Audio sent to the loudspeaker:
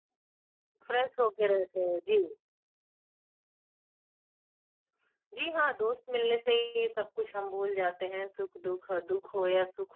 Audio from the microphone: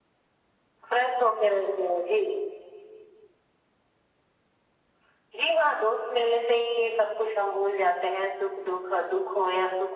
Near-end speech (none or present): none